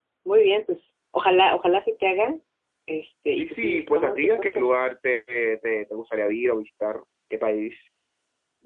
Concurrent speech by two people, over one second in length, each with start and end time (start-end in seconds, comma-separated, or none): 3.4-4.7